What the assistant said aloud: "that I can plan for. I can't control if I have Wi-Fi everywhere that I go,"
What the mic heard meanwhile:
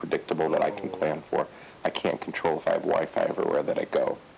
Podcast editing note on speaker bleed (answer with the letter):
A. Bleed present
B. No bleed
A